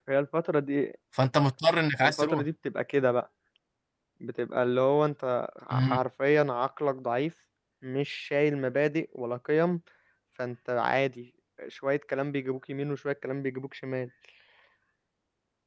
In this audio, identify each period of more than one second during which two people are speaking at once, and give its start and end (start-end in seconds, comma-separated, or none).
none